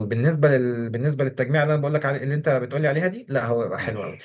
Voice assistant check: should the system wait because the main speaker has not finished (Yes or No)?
Yes